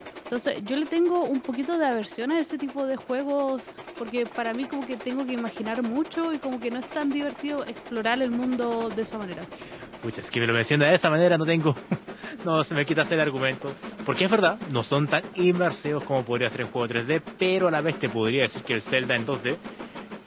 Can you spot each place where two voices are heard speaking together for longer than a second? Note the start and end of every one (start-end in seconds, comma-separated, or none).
none